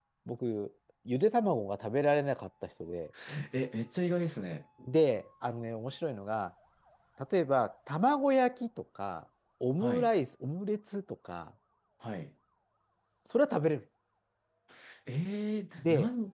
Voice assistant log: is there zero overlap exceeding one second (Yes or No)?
Yes